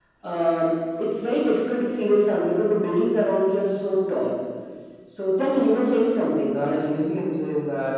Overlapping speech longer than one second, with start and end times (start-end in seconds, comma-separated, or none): none